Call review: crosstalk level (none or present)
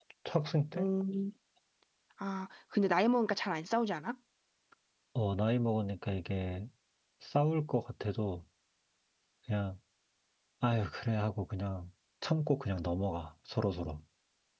none